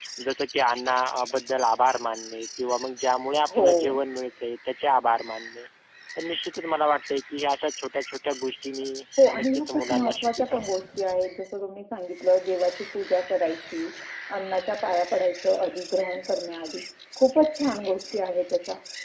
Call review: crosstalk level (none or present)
present